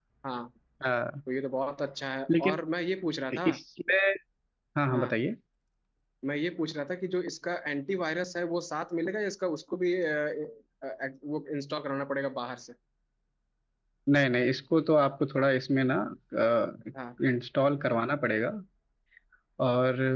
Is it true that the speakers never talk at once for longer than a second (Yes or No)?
Yes